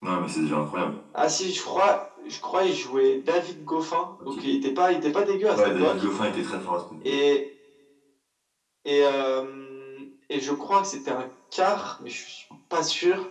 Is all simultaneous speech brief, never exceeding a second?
Yes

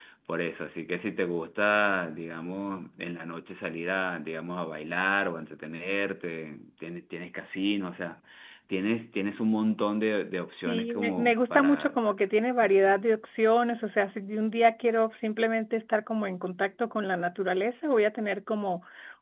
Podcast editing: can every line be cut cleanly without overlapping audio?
No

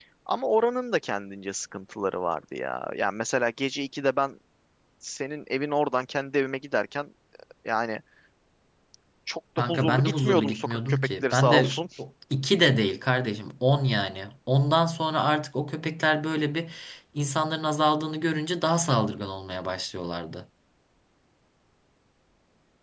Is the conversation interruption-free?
No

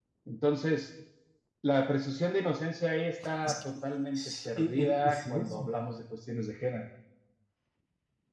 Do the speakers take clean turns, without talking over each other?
No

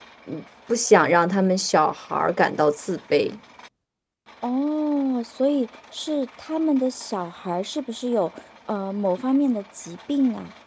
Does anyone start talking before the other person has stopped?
No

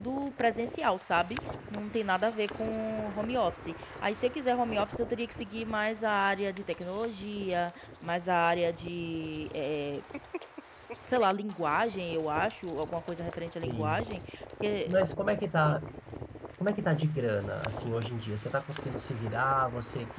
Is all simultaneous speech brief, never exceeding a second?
Yes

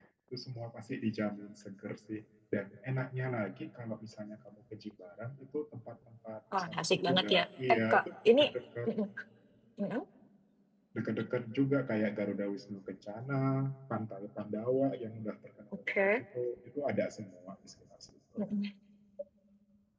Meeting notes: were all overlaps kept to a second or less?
No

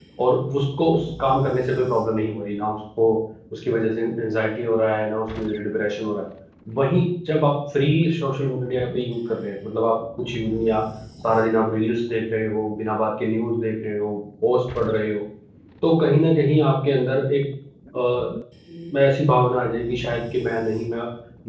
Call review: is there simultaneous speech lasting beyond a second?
No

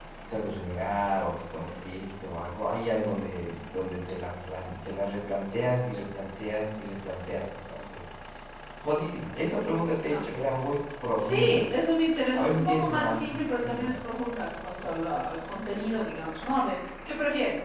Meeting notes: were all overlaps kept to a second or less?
No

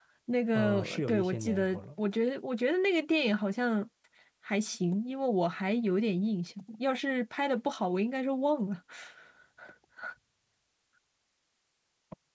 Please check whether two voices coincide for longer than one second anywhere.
Yes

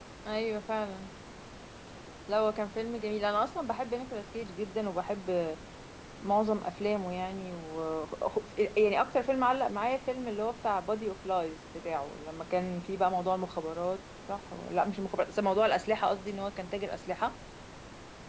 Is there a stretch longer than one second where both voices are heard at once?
No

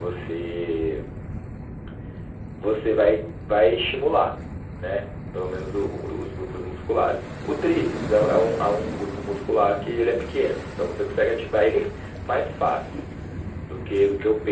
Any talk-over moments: No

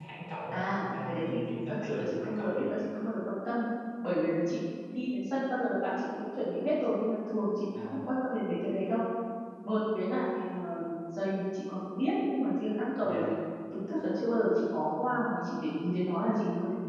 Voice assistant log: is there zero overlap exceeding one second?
No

